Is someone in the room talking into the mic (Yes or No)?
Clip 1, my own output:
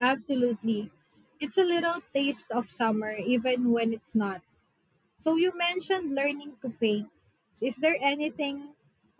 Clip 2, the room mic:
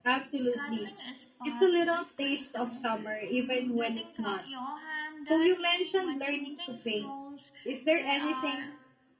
Yes